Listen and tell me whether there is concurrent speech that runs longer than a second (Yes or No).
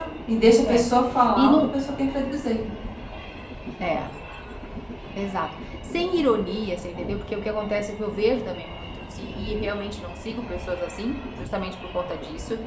No